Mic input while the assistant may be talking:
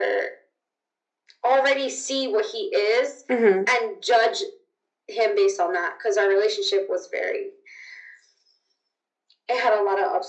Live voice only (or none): hmm